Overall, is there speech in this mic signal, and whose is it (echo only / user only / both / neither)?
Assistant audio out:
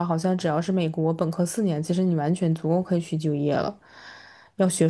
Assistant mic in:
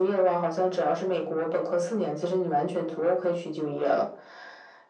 echo only